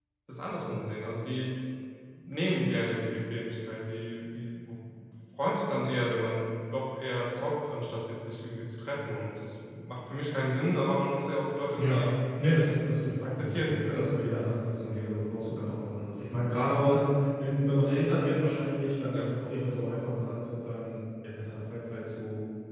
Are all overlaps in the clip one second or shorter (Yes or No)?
No